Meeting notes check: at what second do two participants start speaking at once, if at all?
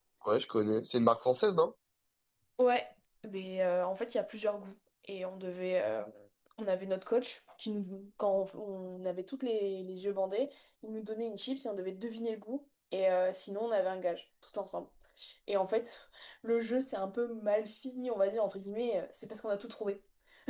none

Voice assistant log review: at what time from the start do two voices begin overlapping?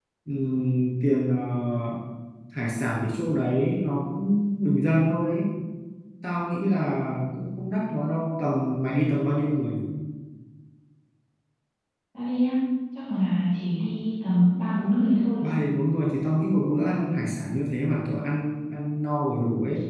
none

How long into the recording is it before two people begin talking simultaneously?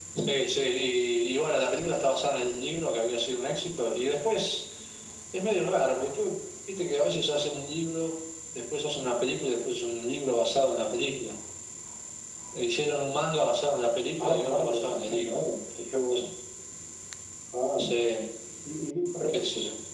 14.2 s

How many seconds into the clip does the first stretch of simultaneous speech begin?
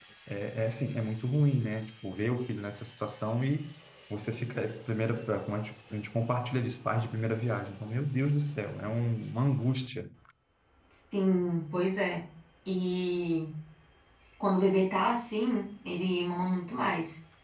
none

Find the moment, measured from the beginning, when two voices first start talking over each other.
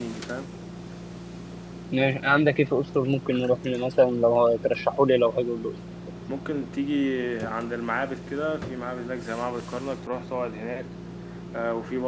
none

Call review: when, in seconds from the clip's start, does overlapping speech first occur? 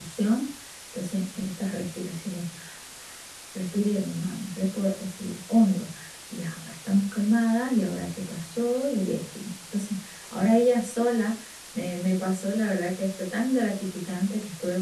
none

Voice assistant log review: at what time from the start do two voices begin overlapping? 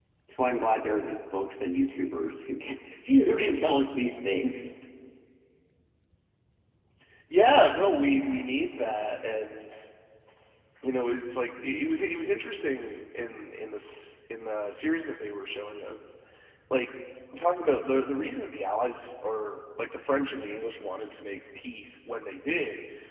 none

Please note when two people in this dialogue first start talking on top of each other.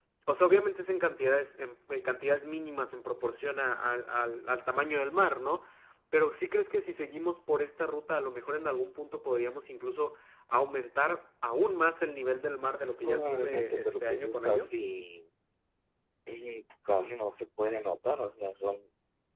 13.0 s

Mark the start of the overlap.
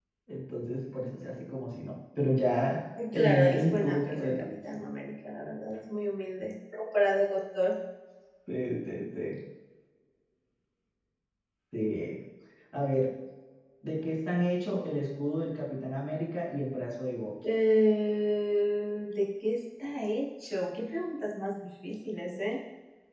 3.0 s

